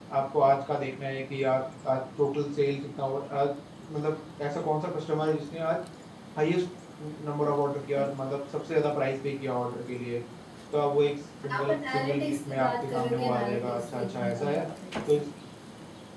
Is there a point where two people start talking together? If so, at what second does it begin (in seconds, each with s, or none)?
11.5 s